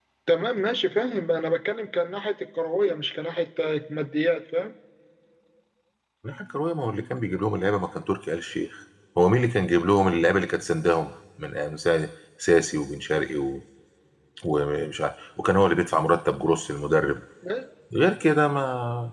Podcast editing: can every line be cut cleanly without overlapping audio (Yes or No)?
Yes